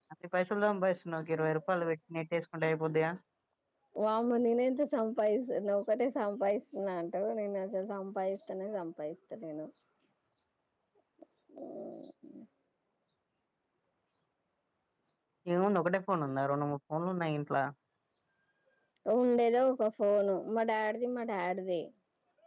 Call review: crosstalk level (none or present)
none